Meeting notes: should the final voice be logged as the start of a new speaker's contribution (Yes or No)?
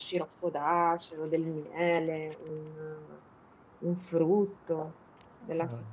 No